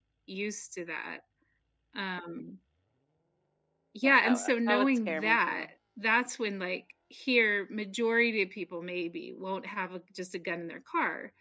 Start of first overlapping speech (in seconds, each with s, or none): 4.0 s